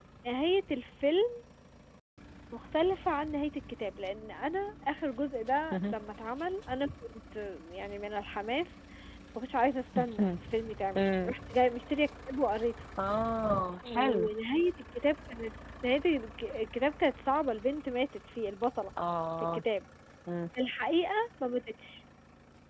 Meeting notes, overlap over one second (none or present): none